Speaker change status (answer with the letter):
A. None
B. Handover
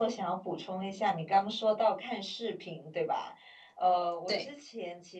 A